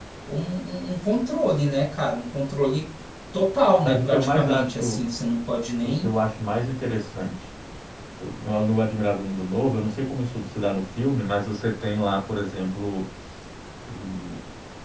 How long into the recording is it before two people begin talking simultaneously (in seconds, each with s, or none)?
3.8 s